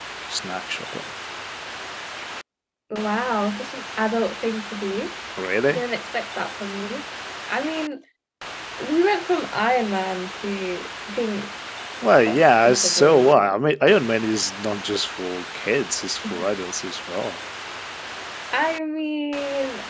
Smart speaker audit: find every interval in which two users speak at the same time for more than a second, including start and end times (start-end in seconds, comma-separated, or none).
12.3-13.6